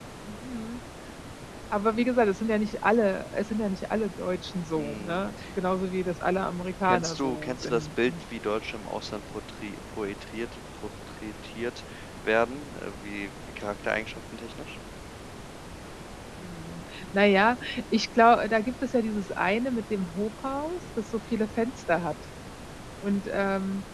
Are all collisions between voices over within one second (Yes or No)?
No